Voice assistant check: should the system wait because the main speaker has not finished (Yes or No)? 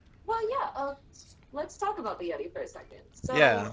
No